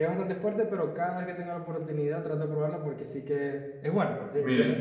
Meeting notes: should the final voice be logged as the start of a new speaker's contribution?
Yes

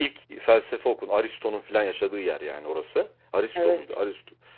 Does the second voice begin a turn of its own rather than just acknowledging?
No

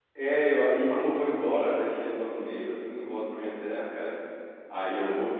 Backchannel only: Yes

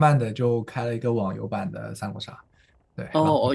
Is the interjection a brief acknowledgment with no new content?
No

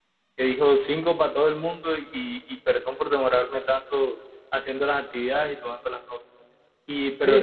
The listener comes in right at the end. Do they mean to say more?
No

